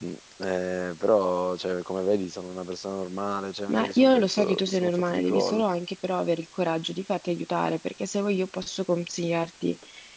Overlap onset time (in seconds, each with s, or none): 3.7 s